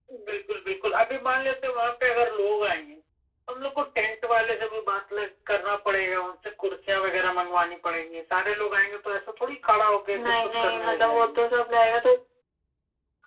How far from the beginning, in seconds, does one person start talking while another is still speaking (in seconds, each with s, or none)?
10.1 s